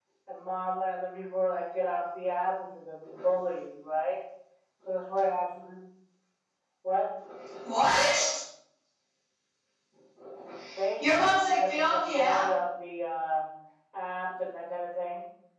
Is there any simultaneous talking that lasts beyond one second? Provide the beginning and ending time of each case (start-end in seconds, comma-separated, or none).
11.0-12.4